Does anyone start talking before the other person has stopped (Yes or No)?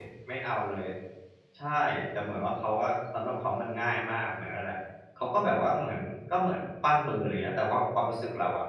No